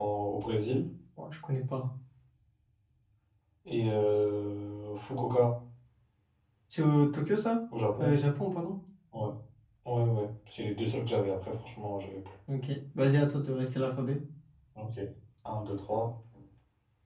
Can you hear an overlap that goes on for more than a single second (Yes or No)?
No